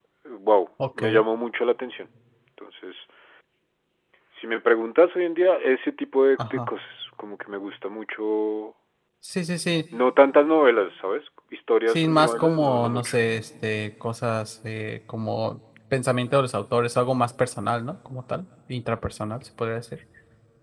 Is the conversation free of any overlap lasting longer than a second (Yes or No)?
No